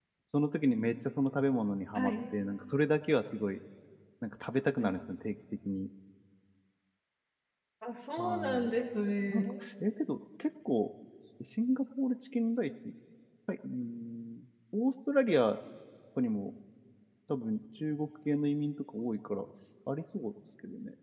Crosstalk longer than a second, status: none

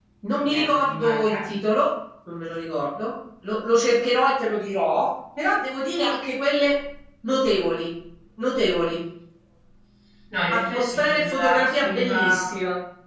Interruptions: present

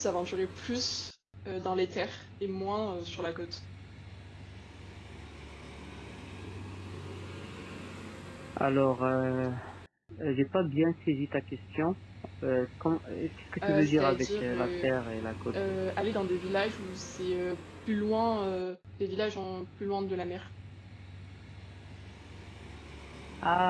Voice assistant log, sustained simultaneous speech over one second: present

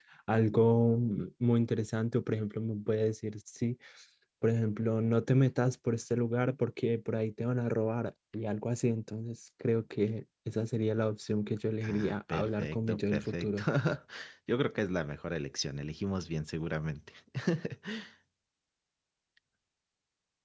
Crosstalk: present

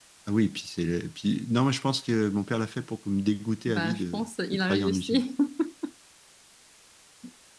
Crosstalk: present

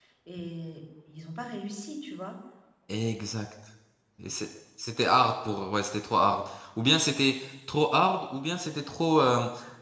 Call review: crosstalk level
none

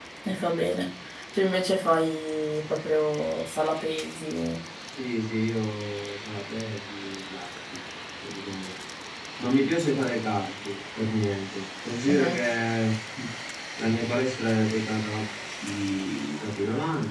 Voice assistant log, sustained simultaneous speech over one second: none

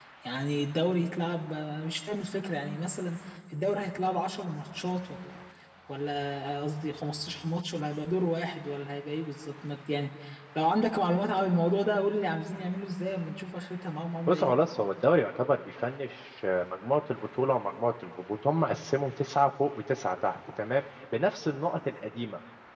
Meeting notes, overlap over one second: none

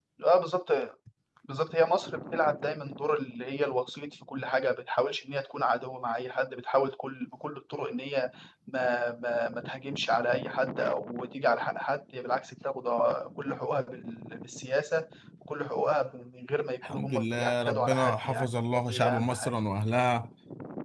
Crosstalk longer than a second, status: present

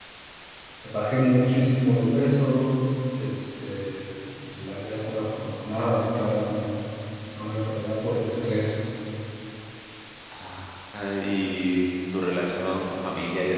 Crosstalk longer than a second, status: none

